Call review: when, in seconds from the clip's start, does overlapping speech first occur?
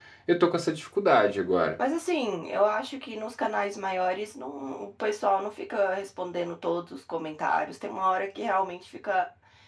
none

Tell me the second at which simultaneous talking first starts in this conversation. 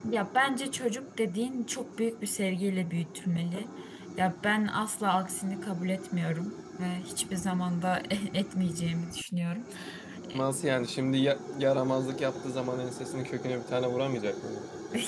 none

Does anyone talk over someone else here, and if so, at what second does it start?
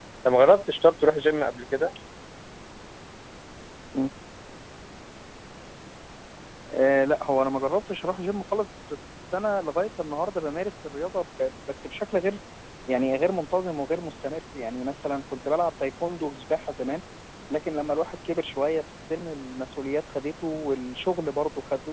none

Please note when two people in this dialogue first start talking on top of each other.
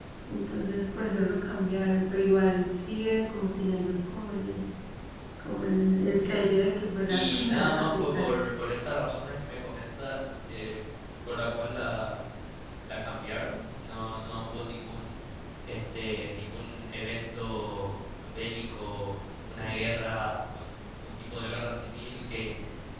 7.1 s

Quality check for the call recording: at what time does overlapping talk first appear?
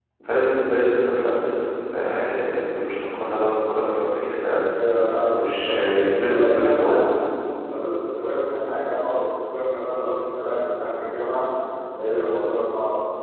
5.2 s

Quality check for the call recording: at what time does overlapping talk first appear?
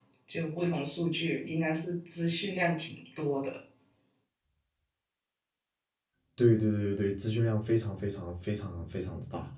none

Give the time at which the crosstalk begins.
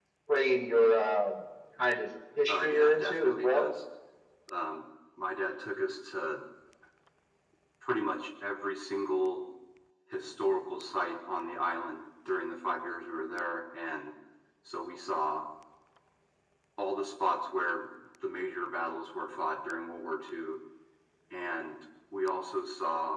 2.5 s

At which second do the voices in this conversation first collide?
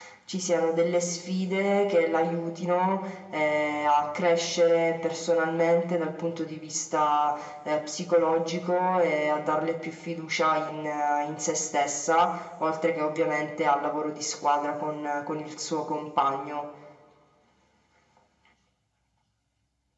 none

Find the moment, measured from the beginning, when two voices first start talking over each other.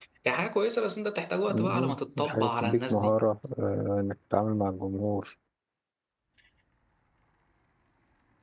1.5 s

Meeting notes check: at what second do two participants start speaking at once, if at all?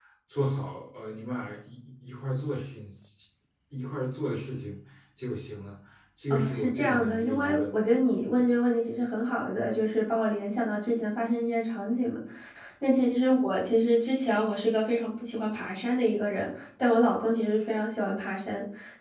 6.3 s

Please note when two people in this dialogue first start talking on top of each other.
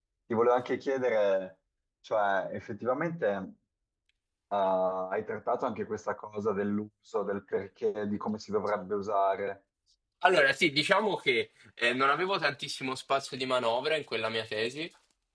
none

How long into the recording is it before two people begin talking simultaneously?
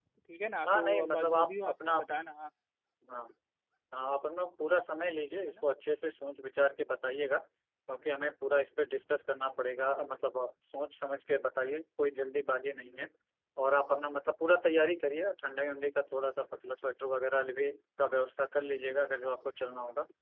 0.7 s

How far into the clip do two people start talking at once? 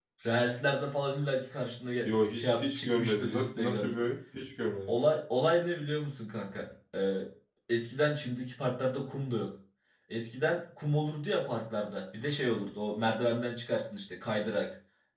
2.0 s

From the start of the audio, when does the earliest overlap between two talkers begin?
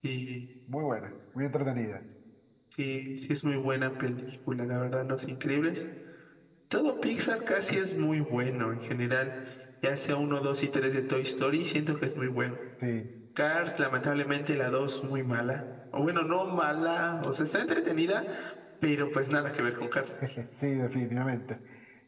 none

